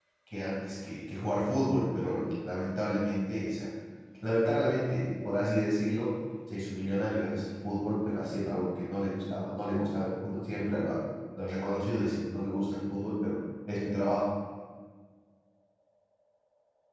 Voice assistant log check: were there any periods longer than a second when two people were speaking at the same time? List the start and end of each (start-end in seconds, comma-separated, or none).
none